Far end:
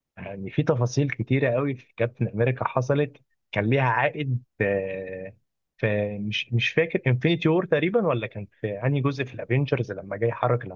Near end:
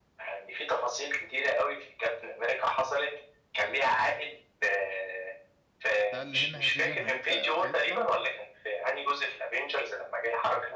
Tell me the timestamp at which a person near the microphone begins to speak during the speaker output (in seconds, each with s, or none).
6.1 s